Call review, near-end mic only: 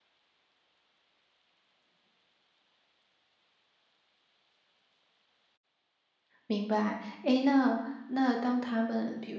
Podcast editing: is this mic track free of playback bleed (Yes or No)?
Yes